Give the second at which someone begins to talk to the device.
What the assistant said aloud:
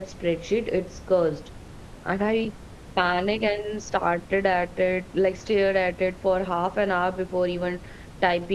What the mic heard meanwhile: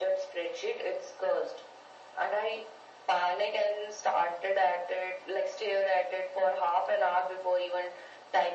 none

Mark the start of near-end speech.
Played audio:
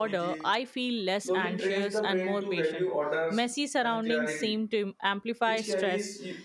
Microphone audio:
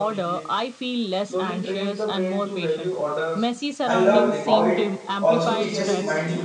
3.8 s

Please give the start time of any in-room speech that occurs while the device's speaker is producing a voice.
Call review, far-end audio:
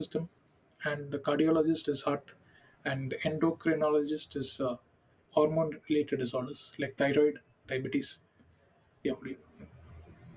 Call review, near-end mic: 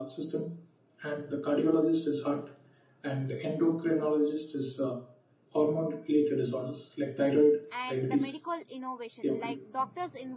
7.7 s

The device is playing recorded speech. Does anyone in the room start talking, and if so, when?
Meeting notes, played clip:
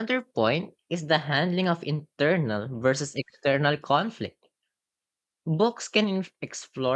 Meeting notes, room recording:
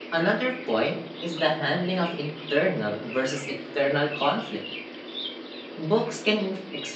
none

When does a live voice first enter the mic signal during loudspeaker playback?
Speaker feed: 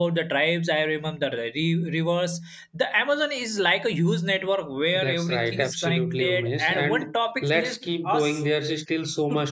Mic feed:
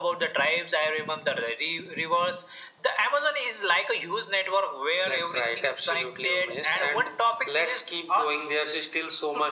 none

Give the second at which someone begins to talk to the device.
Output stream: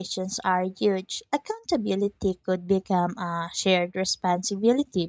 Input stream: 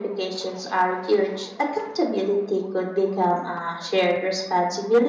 none

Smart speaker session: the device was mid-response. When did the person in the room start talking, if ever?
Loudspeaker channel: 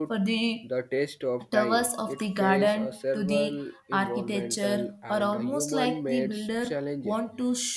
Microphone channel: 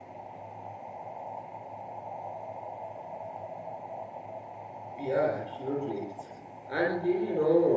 5.0 s

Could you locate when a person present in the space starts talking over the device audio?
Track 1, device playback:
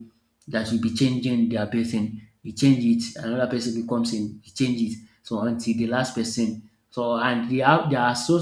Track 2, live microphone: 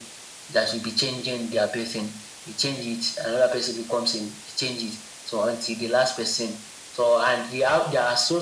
none

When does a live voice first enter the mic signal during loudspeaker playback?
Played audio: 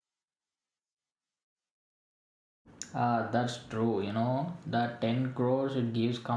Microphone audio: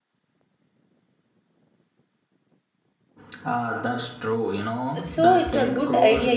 5.0 s

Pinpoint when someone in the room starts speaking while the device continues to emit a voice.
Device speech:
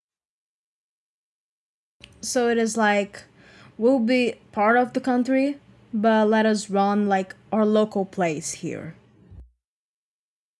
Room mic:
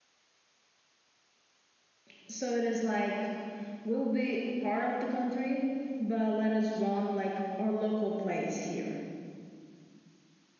none

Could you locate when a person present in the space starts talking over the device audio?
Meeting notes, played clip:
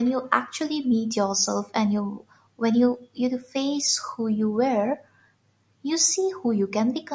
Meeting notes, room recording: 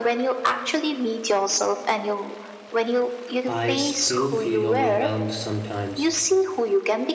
3.5 s

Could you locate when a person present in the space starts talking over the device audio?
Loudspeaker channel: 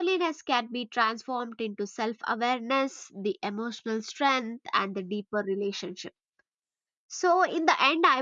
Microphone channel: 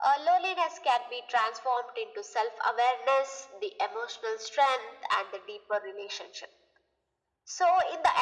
none

